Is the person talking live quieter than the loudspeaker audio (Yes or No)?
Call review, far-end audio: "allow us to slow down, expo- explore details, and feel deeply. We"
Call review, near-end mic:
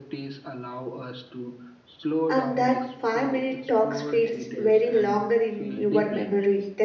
No